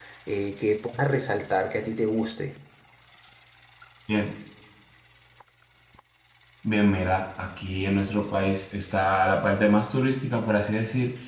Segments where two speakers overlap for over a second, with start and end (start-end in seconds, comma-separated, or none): none